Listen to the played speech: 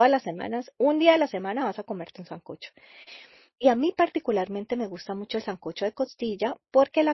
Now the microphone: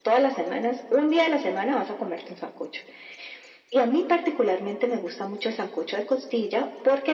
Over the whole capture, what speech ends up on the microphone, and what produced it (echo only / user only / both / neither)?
echo only